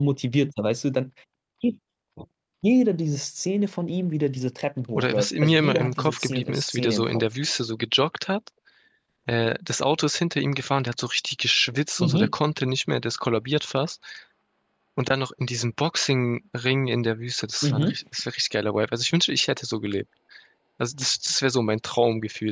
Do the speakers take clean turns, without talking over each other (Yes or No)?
No